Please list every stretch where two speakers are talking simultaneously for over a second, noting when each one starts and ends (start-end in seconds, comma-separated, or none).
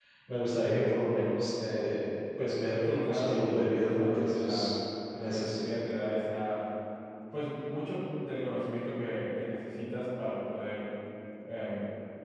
2.9-4.7